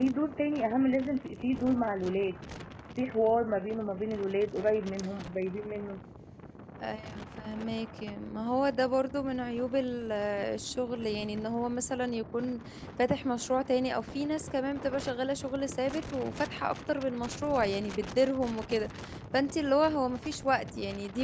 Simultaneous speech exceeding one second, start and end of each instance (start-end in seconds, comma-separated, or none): none